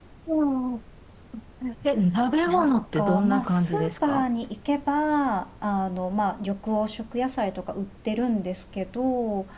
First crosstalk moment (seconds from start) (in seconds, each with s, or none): 2.5 s